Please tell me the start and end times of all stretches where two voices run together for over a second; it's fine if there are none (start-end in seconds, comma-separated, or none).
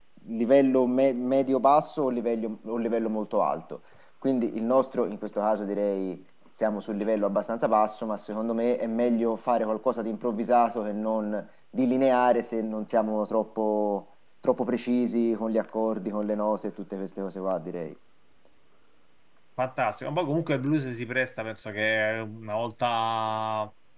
none